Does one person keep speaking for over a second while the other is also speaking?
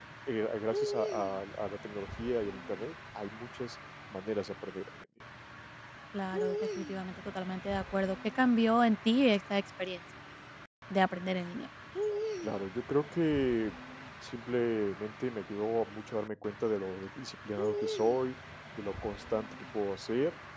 No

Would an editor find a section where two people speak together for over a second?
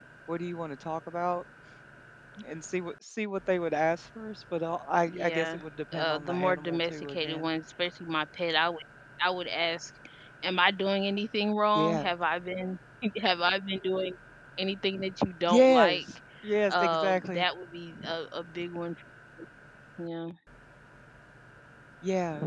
Yes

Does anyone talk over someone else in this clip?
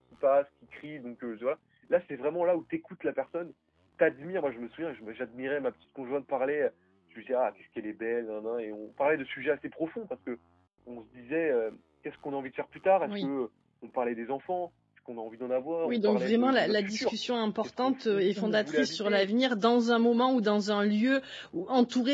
Yes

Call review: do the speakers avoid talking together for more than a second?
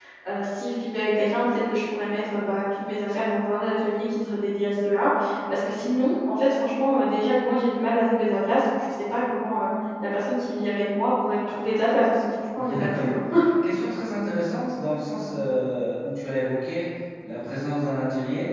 Yes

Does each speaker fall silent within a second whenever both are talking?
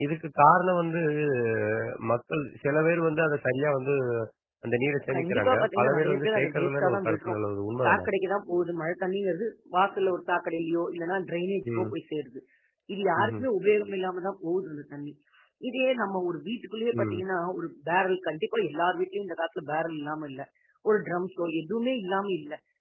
No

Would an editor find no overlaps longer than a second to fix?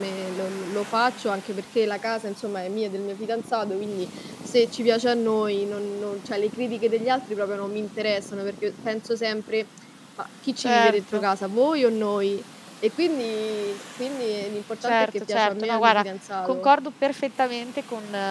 No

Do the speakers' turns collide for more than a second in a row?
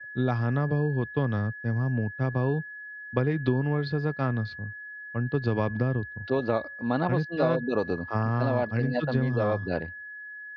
Yes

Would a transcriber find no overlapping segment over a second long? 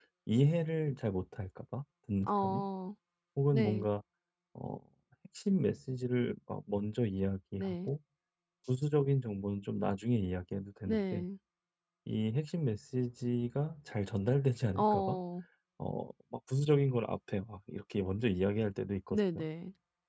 Yes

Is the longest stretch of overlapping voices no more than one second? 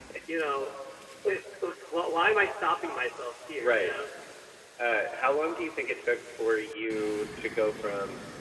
Yes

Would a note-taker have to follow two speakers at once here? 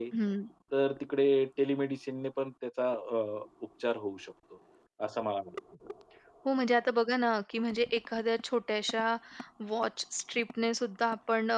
No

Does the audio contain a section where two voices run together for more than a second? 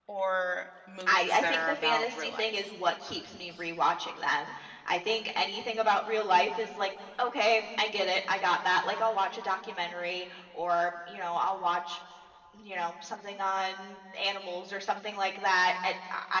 Yes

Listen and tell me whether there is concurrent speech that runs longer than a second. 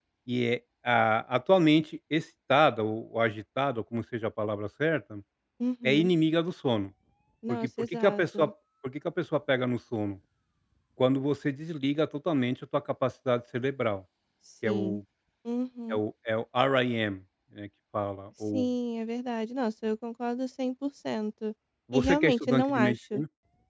Yes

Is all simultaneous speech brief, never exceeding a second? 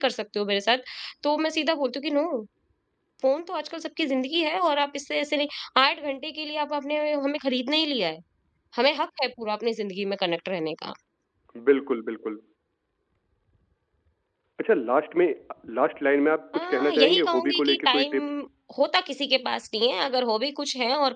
No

